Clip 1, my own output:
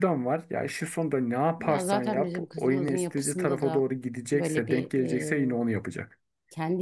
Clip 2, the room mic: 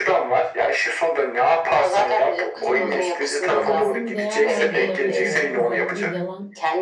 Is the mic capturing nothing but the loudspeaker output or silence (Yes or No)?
No